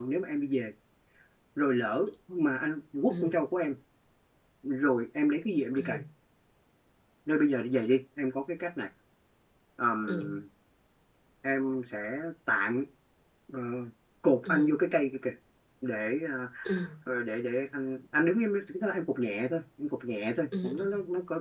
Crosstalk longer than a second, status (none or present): none